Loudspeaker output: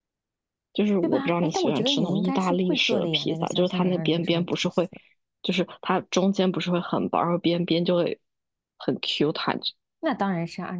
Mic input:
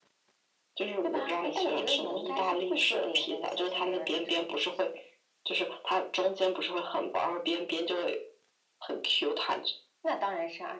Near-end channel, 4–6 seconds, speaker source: echo only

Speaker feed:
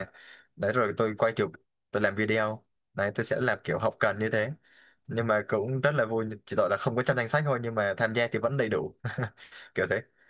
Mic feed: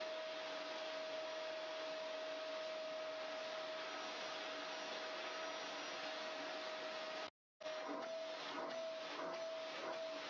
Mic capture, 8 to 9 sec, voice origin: neither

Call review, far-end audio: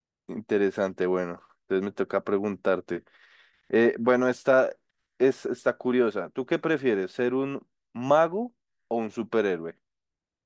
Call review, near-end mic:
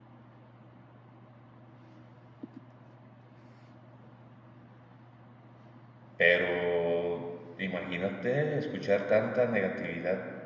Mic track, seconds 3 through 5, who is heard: neither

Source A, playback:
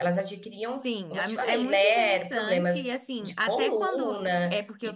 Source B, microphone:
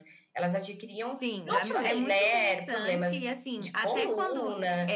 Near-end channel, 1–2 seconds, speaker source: both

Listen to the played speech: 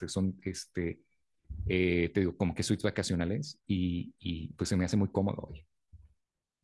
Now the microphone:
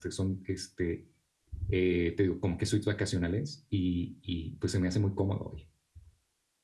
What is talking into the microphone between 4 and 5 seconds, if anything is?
echo only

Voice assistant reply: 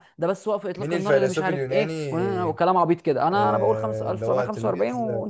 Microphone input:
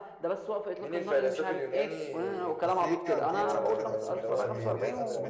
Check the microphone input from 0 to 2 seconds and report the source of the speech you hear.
echo only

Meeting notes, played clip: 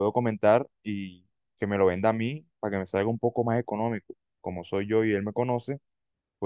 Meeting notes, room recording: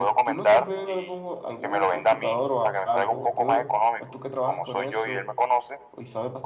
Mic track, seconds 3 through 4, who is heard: both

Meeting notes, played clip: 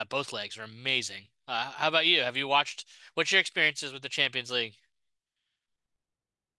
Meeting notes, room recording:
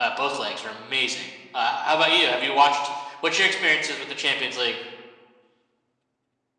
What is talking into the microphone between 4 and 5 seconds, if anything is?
echo only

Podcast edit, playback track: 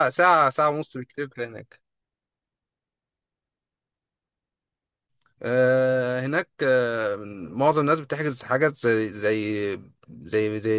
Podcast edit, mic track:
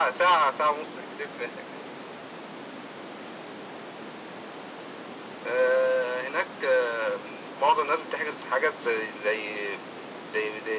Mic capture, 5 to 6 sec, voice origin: echo only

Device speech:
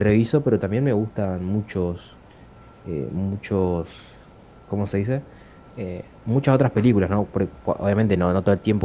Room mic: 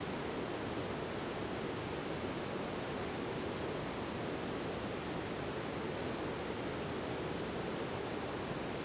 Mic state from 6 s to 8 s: neither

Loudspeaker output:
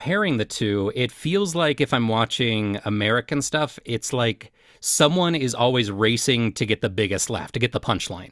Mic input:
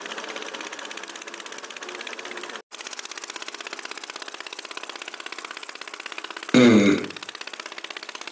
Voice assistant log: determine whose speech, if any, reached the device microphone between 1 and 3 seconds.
neither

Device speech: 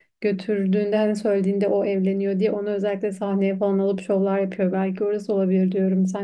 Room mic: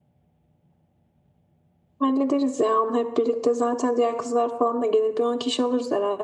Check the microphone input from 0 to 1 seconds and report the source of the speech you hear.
neither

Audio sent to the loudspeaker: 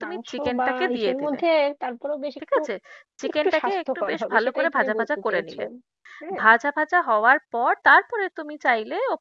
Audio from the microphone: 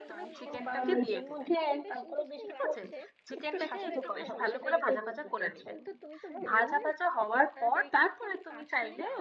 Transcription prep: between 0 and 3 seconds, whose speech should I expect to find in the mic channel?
both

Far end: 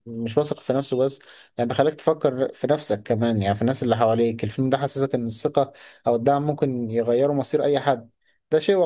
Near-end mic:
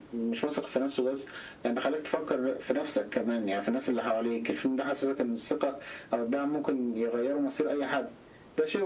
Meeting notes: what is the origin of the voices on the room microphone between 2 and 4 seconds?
echo only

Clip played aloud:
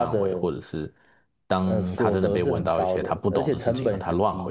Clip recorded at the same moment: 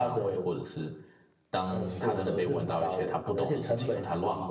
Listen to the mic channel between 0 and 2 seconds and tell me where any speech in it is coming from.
echo only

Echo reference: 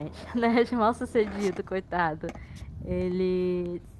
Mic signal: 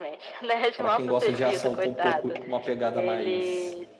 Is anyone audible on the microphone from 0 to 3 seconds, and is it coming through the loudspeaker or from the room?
both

